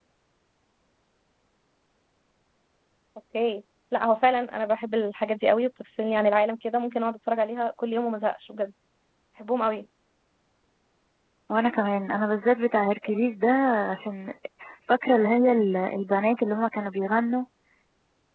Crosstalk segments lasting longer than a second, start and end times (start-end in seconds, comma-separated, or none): none